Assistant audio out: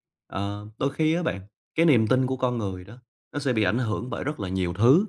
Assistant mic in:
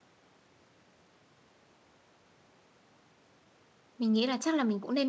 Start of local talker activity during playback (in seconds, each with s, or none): 4.0 s